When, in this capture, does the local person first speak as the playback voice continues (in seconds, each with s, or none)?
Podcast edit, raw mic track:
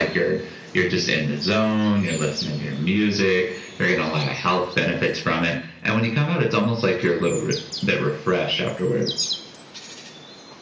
none